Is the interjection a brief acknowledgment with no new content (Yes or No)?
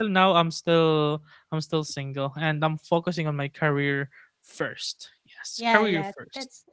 No